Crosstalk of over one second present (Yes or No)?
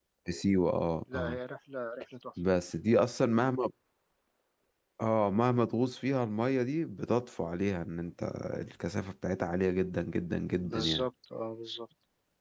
No